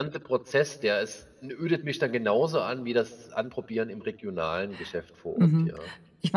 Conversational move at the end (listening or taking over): taking over